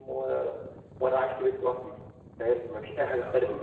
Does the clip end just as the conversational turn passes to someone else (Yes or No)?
Yes